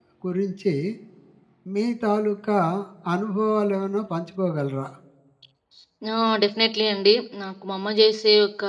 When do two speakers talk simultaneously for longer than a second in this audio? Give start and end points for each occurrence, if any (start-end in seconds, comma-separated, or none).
none